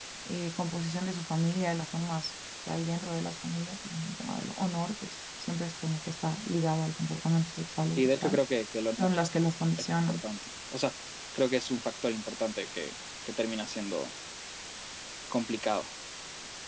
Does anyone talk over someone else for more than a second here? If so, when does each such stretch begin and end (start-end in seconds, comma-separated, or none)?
none